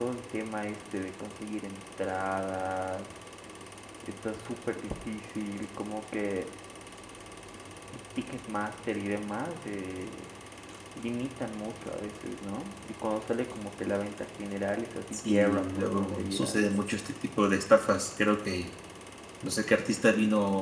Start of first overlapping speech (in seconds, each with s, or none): 15.1 s